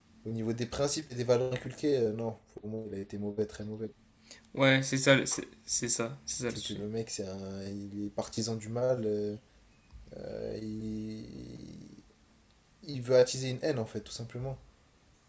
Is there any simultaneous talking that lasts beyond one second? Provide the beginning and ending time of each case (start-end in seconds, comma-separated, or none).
none